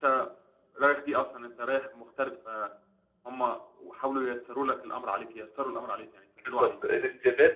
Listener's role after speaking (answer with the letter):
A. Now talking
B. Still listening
A